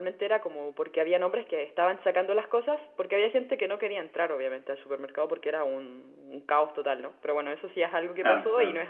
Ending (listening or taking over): listening